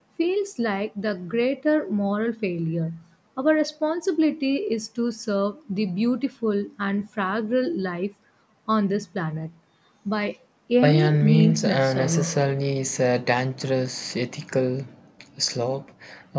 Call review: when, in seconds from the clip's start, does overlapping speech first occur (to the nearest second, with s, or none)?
11 s